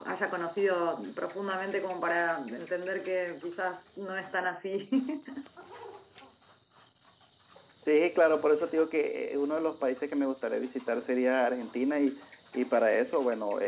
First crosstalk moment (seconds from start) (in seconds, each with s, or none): none